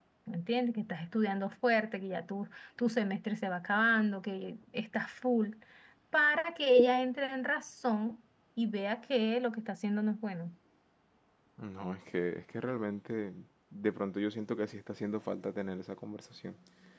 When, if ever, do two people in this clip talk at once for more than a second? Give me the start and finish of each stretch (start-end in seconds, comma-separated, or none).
none